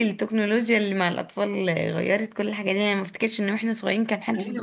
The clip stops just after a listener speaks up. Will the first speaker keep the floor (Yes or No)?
No